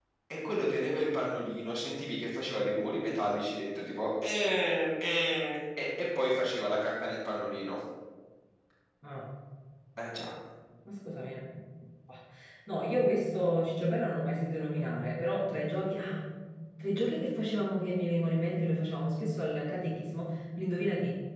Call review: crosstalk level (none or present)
none